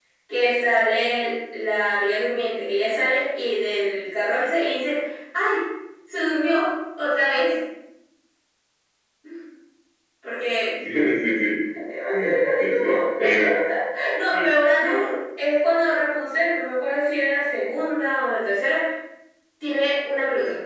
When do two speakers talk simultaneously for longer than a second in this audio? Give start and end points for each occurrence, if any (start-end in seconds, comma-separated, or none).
12.1-13.6